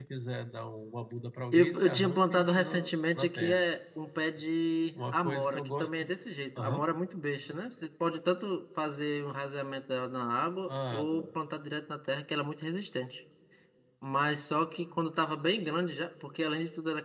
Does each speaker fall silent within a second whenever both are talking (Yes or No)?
No